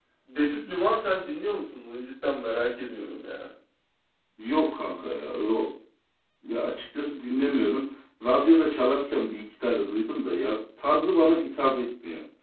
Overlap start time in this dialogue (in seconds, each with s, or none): none